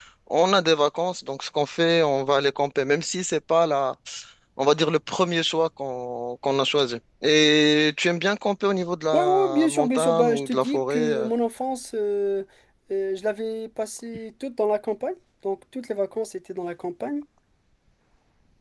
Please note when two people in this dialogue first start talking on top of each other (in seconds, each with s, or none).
9.1 s